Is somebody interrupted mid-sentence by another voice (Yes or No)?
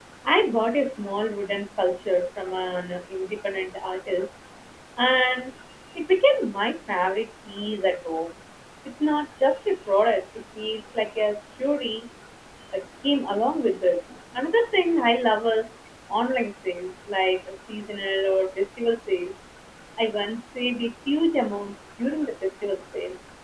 No